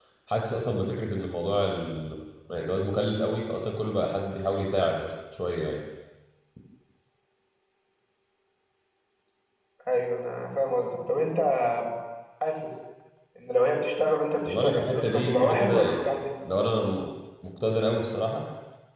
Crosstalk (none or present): present